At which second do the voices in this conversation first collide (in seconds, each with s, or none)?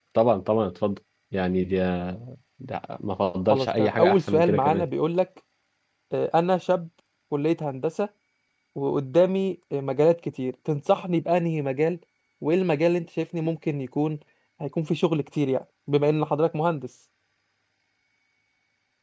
3.5 s